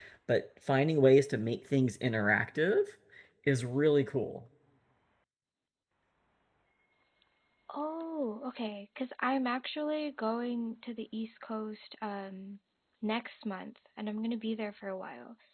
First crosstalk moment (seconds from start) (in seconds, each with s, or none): none